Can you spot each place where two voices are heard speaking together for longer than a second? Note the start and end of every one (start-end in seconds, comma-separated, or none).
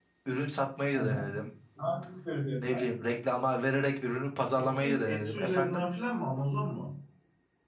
4.5-5.8